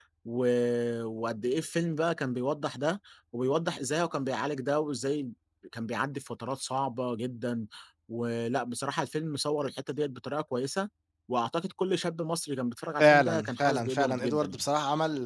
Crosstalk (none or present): present